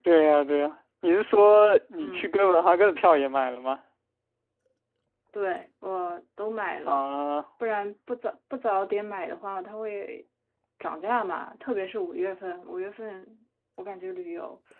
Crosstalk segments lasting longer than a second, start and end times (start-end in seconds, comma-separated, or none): none